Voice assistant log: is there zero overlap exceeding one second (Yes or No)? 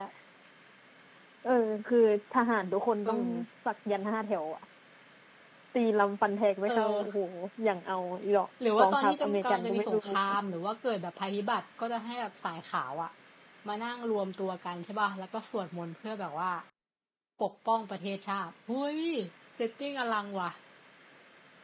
No